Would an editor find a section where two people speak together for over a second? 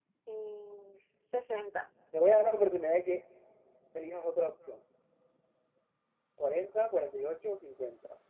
No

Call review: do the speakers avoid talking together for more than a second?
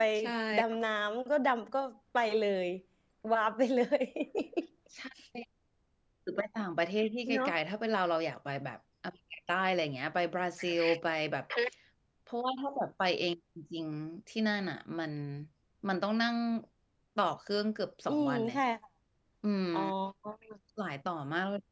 Yes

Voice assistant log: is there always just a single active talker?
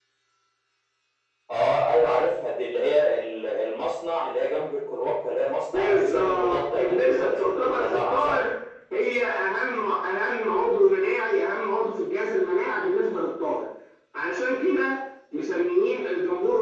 No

